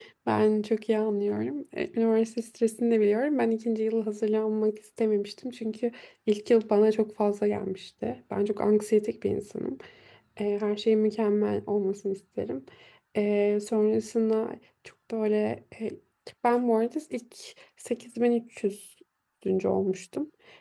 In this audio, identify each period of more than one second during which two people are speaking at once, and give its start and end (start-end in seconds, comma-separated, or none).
none